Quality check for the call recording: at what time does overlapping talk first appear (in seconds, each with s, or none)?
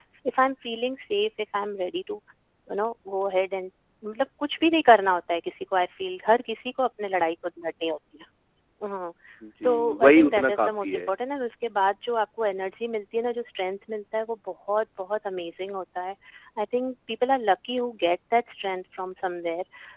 9.6 s